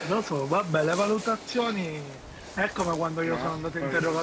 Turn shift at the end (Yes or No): No